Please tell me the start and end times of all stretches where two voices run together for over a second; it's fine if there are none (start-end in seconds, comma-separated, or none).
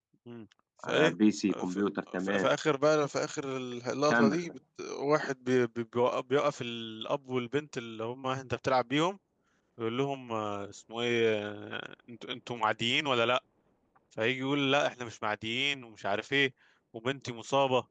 none